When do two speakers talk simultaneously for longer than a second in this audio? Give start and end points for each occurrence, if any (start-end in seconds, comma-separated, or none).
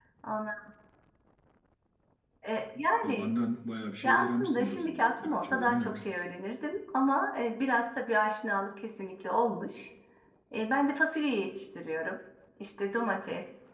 4.0-6.0